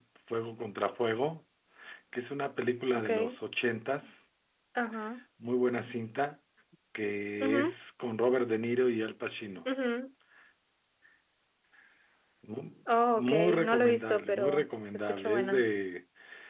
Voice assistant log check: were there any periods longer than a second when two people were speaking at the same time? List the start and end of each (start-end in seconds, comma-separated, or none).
13.1-15.6